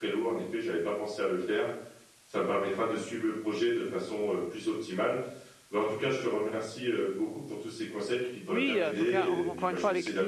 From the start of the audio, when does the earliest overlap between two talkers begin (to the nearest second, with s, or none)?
8 s